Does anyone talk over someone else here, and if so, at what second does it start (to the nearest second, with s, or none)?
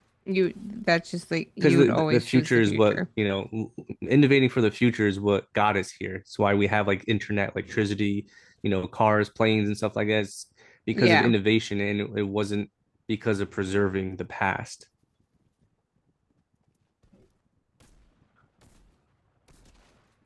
2 s